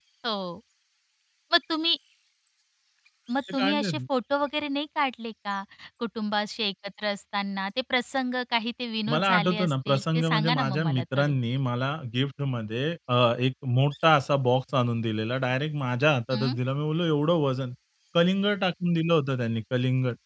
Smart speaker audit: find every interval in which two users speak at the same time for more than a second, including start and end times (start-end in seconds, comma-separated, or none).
9.1-11.3